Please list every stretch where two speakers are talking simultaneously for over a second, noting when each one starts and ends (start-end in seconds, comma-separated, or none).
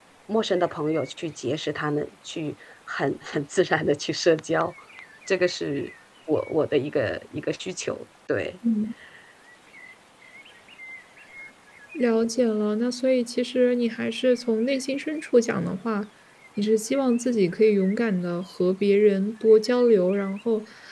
none